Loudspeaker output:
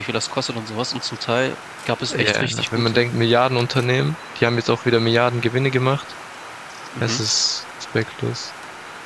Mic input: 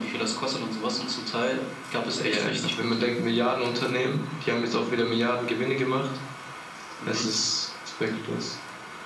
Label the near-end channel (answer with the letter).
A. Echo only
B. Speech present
A